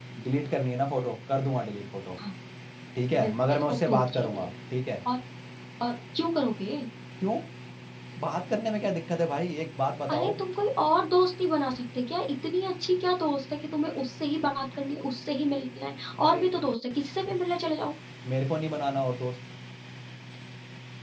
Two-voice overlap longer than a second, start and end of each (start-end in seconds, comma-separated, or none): 3.1-4.5